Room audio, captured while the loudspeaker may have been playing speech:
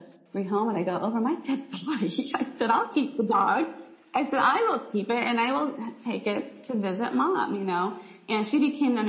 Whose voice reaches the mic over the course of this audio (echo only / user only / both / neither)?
echo only